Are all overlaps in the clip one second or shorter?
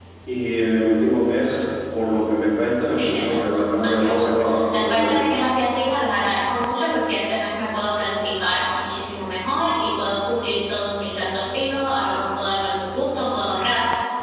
No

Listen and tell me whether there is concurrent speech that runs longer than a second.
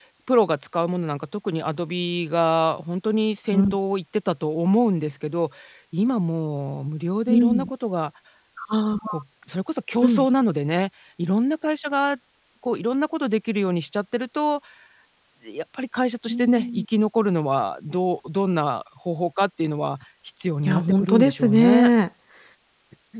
Yes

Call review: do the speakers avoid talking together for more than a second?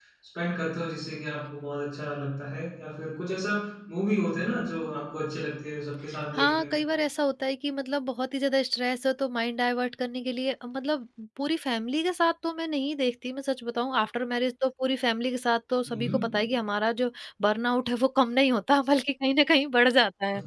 Yes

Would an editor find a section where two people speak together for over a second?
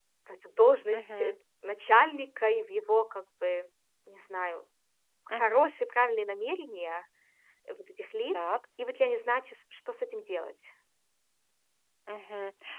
No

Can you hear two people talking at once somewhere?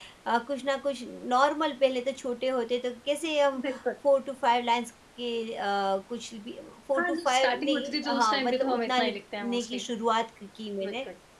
Yes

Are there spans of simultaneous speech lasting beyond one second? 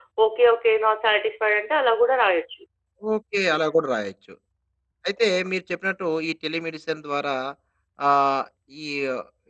No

